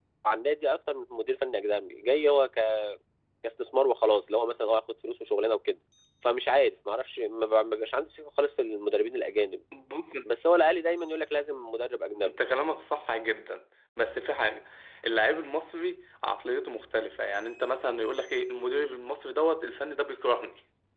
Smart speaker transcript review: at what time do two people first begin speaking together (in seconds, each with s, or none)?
none